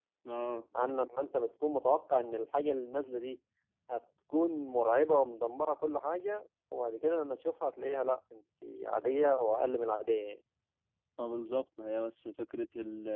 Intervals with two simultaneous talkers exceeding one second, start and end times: none

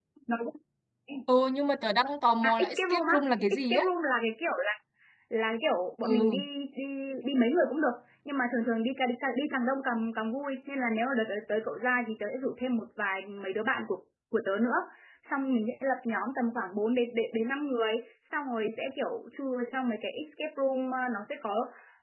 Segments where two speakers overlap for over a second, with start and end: 2.4-3.8

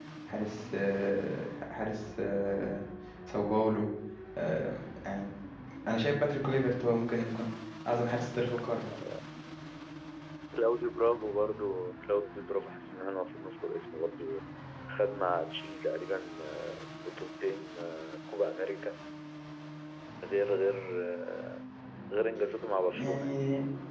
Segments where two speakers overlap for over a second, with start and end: none

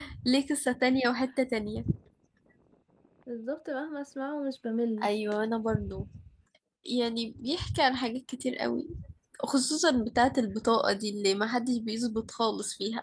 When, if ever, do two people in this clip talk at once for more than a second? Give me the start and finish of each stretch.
none

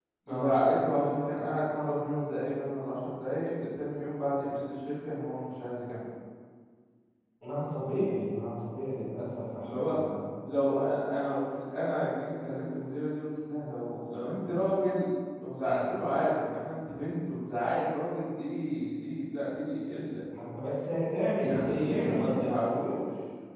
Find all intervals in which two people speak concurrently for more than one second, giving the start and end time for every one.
21.5-23.0

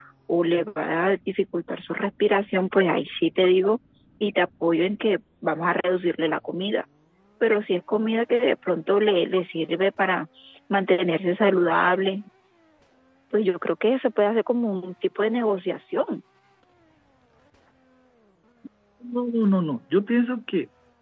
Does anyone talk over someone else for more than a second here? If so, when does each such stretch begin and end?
none

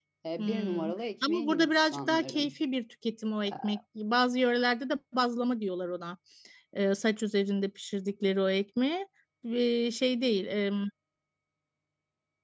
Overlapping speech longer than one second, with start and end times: 1.3-2.5

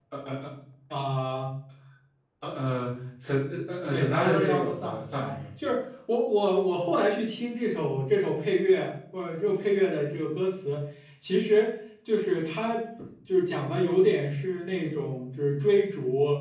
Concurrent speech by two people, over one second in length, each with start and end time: 3.9-5.4

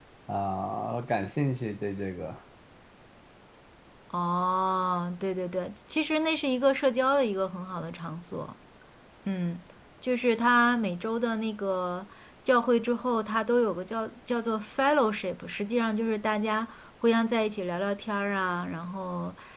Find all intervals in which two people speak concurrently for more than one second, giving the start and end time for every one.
none

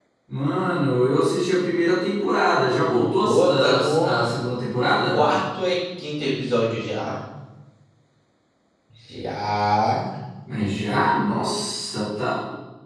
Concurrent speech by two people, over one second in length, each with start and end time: 2.9-4.2

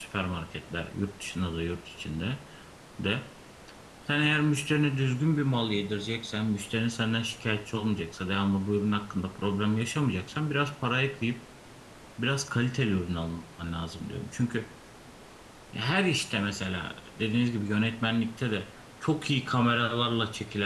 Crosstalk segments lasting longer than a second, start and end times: none

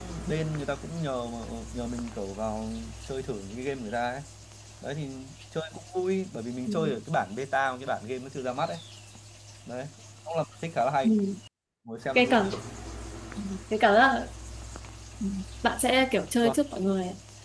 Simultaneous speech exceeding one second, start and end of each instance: none

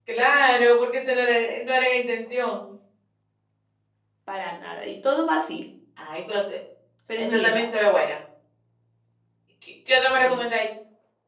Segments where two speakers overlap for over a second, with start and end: none

